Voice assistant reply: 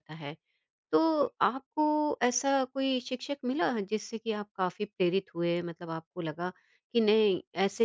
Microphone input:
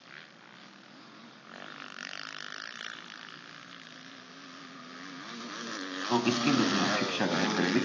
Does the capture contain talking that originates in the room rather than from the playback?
Yes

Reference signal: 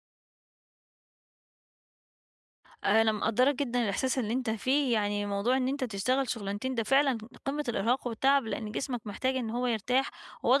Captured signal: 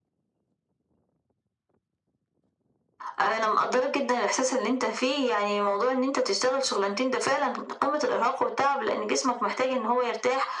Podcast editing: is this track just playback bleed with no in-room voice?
Yes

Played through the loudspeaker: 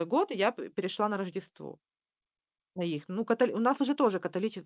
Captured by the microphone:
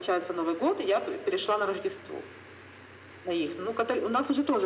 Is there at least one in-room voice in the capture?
No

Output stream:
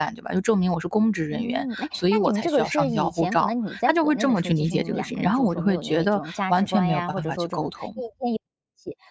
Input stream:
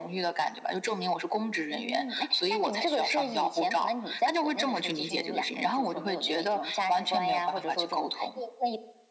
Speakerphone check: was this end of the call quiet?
Yes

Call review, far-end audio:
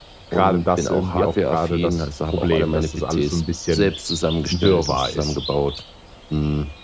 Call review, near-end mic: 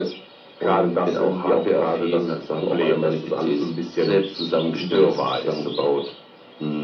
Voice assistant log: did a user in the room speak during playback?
No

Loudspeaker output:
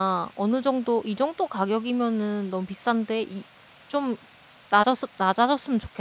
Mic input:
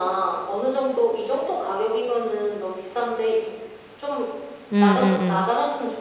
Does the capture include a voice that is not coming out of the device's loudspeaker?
Yes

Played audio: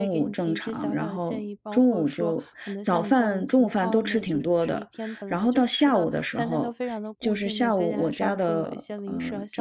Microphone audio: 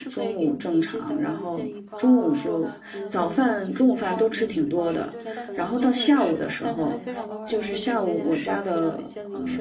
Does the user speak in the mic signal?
Yes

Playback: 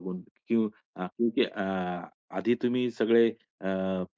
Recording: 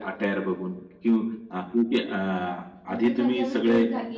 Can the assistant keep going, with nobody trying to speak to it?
No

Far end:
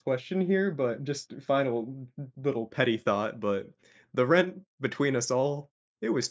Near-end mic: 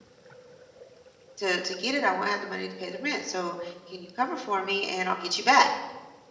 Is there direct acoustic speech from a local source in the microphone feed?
Yes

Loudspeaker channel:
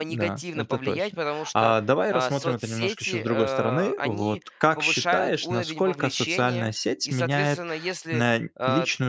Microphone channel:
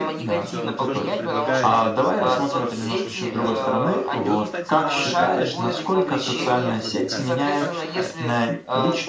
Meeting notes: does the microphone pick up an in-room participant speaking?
Yes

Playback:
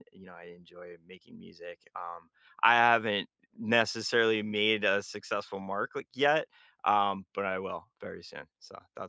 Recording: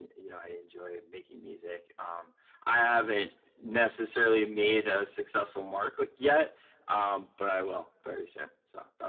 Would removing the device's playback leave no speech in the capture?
Yes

